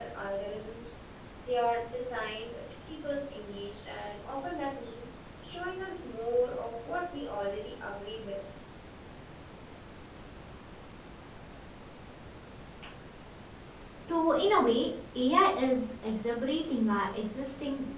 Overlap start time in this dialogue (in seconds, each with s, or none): none